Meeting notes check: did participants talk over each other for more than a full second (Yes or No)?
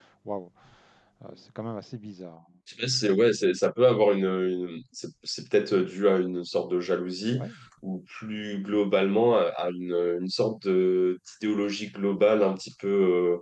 No